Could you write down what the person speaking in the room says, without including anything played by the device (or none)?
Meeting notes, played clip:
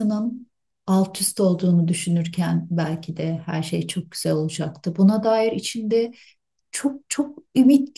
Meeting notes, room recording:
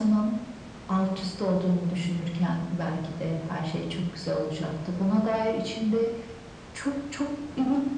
none